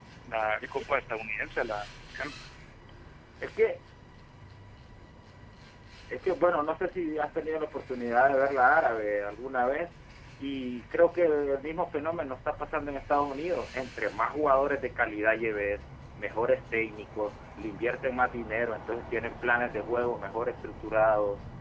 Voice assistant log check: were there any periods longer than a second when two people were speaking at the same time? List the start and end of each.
none

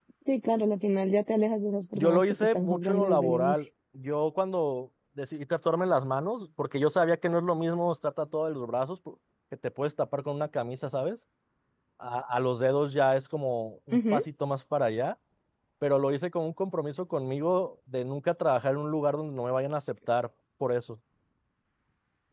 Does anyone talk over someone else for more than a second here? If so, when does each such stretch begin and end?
1.9-3.5

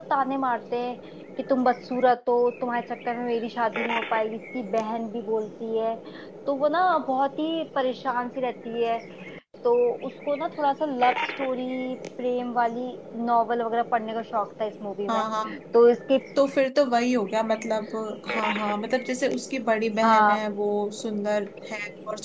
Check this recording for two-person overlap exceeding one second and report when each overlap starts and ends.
none

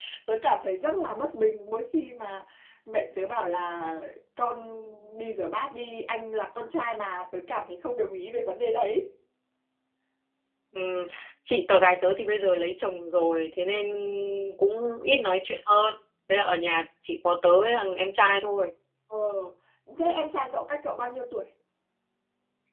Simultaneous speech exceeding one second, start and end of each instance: none

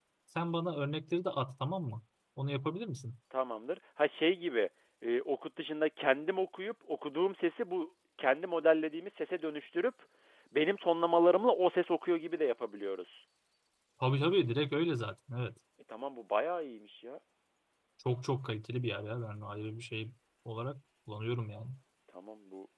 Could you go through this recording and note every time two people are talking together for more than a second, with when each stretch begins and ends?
none

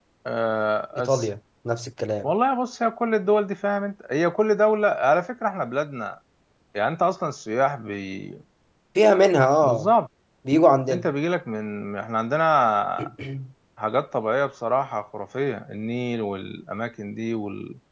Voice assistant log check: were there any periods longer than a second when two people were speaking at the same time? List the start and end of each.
none

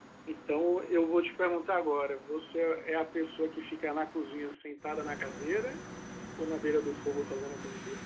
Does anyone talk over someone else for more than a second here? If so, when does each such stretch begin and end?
none

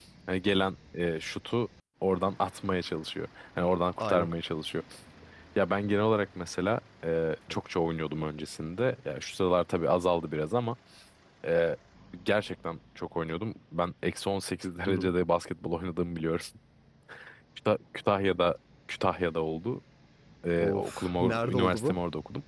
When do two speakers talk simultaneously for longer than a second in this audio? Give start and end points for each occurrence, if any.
20.6-22.0

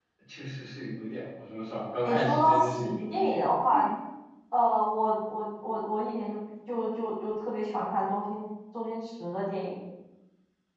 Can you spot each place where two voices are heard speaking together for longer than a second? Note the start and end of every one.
2.0-3.5

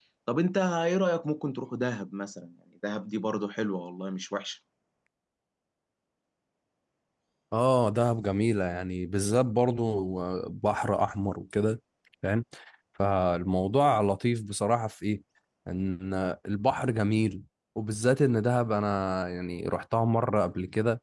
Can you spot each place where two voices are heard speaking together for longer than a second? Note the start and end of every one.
none

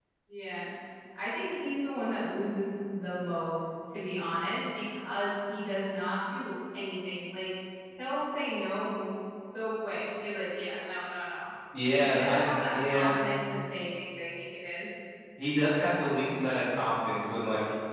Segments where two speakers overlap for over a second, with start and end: 11.9-13.2

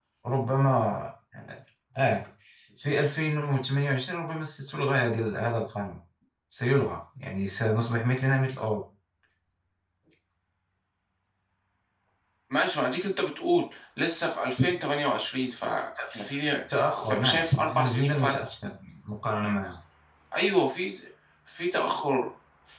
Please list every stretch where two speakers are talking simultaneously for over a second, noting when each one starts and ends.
16.7-18.4

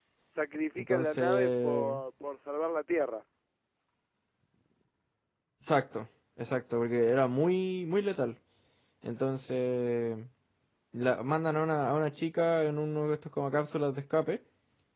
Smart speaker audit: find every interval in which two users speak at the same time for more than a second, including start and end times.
0.8-2.0

